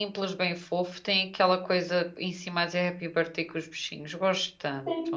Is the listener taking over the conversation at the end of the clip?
Yes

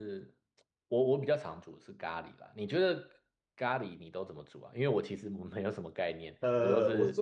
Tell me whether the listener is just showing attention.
No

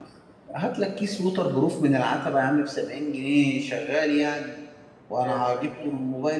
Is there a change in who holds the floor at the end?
No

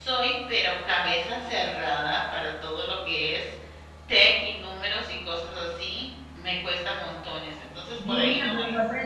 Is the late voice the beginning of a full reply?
Yes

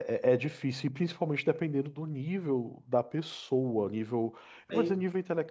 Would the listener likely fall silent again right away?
Yes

